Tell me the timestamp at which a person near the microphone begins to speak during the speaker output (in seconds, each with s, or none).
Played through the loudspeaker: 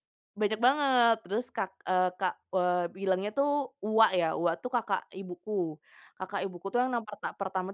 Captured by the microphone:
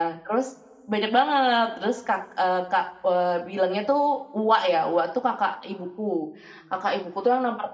none